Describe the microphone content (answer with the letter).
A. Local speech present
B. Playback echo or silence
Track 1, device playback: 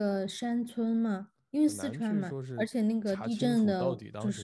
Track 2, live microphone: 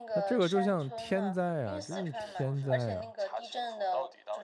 A